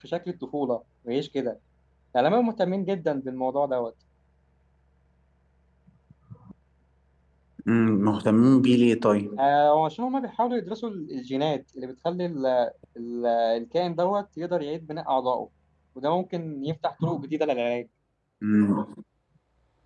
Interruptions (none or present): none